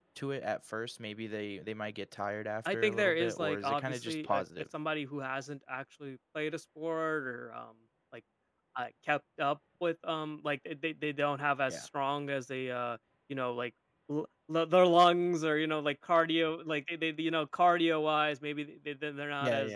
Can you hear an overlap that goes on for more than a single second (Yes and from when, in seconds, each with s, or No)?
Yes, from 2.6 s